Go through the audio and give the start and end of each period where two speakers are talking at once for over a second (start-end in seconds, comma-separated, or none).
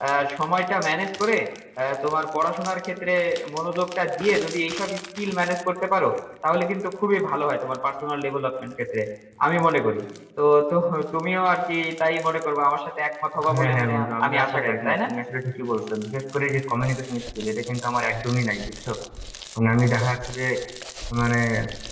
13.5-15.1